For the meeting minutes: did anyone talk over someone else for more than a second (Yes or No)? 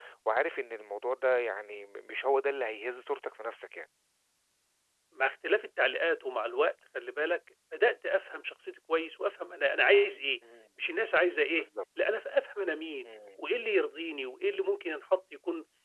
No